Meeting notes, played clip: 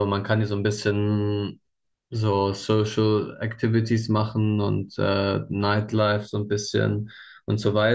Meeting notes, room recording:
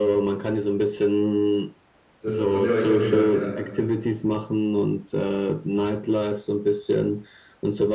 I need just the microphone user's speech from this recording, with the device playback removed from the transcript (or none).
Das, von dem habe ich schon gehört, ja.